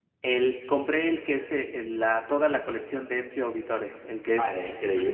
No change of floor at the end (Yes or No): No